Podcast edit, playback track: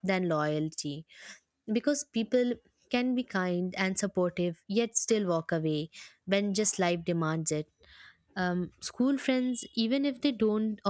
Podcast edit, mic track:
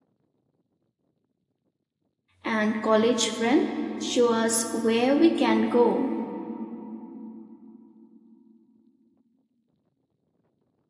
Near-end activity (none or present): present